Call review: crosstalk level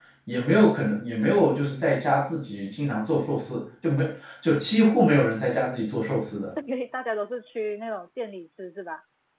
none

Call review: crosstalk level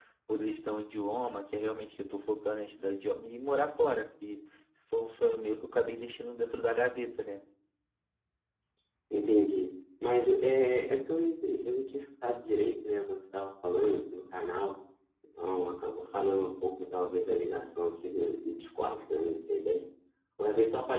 none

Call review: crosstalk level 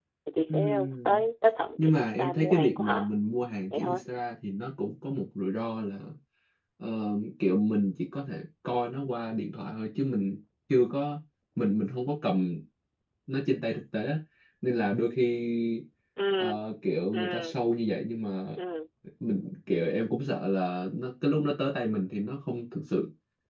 present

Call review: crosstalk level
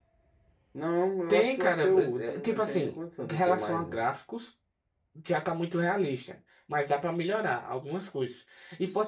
present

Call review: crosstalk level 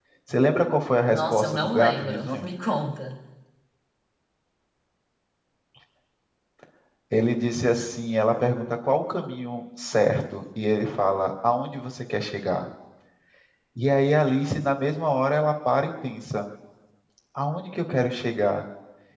present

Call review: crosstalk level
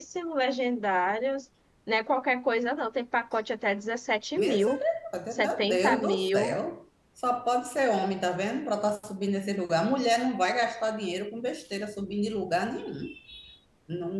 present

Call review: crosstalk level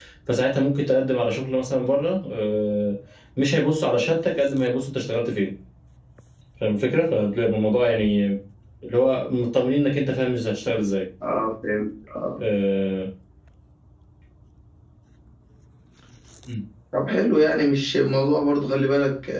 none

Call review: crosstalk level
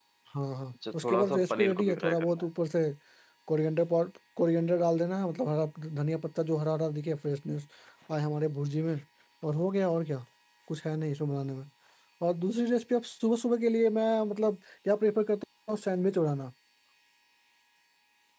present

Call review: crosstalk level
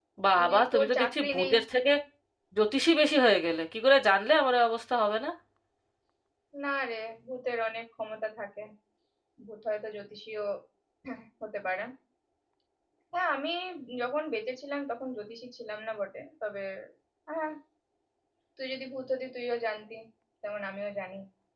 present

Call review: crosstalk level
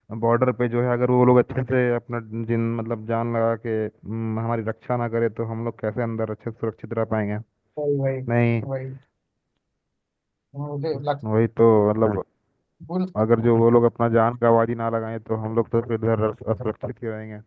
none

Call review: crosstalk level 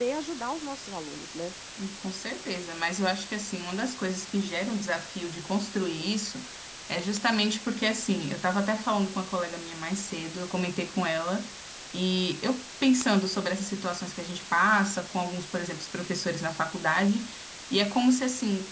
none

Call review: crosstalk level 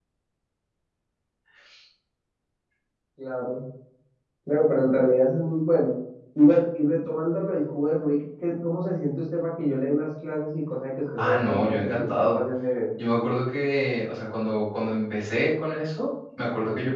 present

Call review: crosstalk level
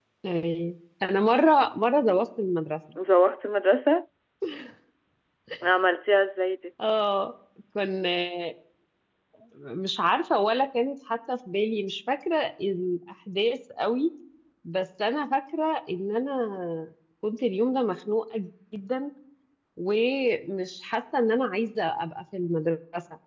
none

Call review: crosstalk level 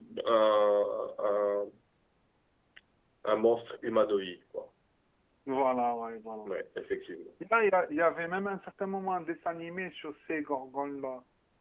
none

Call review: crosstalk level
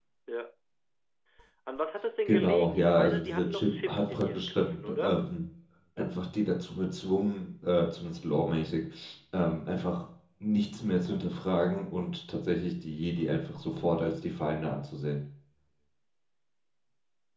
present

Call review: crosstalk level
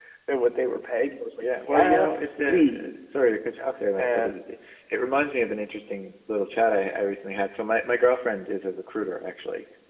present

